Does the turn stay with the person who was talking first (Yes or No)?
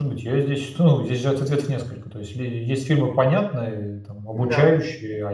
Yes